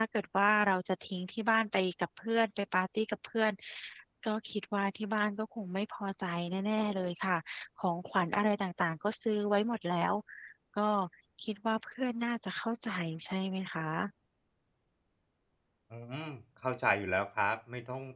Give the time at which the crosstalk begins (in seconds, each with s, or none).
none